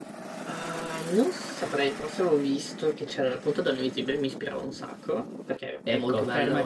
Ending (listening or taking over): taking over